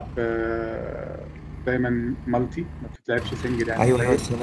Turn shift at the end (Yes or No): Yes